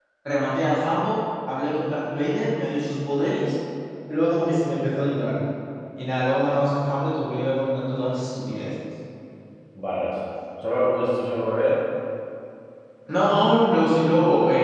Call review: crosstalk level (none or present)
none